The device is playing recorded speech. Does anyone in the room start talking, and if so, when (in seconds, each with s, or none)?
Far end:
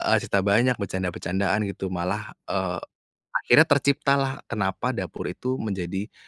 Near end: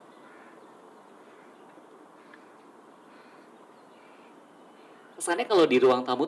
5.2 s